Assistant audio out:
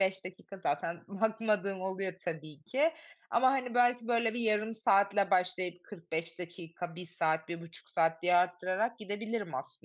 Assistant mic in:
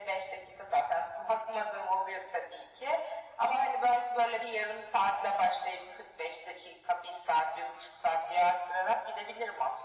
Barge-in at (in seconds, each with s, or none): none